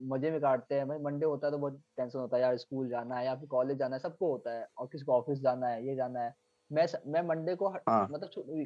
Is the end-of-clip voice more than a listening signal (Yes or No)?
No